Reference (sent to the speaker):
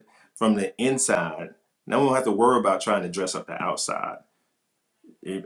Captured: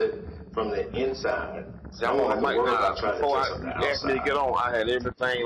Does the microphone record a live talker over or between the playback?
Yes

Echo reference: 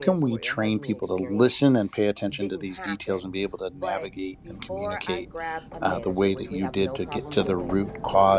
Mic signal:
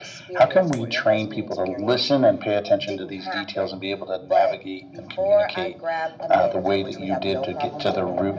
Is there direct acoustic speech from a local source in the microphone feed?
No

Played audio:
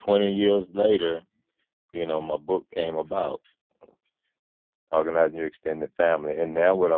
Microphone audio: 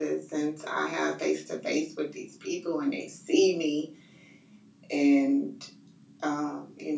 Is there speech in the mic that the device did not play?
Yes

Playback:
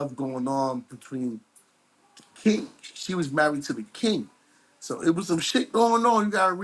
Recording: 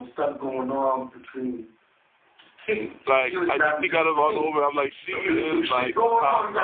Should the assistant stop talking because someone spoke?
Yes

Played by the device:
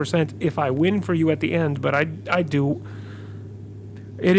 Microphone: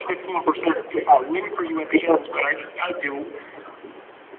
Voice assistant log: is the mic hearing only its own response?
Yes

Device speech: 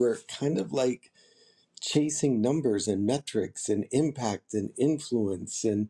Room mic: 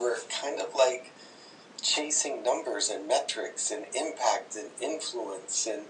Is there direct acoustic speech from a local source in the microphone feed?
No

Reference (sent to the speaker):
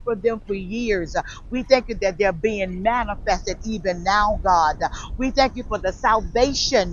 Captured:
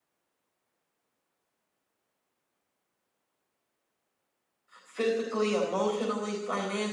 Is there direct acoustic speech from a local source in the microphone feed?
Yes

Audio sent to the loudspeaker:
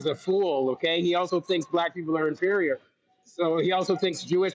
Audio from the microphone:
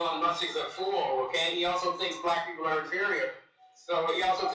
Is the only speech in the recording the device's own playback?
Yes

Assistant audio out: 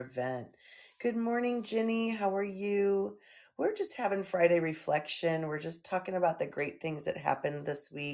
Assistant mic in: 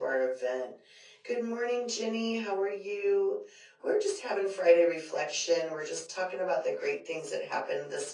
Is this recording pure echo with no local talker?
Yes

